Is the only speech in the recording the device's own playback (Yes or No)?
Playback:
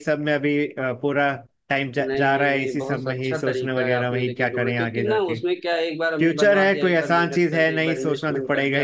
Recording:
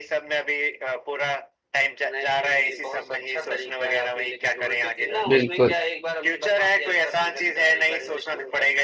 No